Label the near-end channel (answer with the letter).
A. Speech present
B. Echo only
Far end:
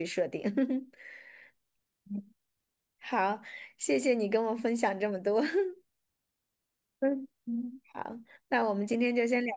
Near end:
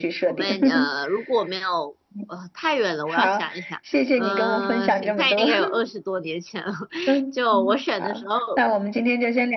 A